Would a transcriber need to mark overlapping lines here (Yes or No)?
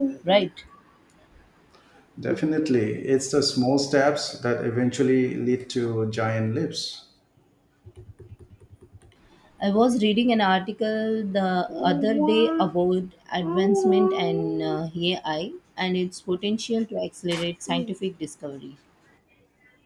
No